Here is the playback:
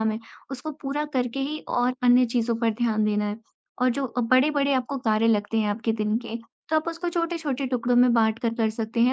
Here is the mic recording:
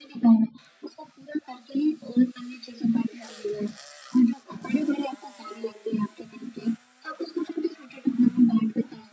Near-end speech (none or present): none